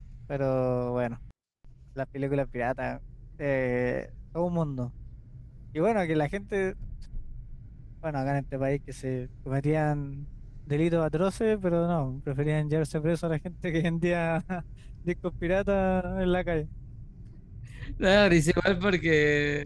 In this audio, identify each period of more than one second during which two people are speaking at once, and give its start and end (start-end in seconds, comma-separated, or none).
none